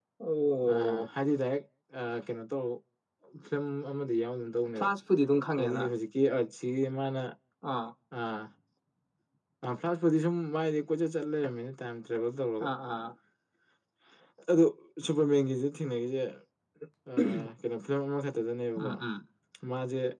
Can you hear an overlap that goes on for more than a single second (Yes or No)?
No